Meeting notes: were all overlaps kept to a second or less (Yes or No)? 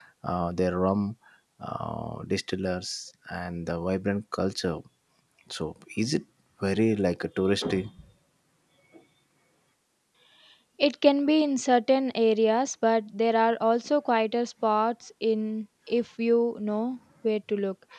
Yes